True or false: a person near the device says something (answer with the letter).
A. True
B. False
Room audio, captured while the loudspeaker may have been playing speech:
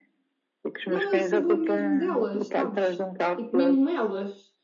A